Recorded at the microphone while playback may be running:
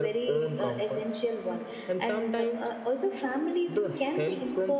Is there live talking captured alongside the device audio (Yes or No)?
Yes